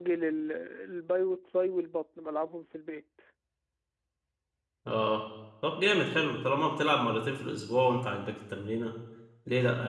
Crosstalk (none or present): none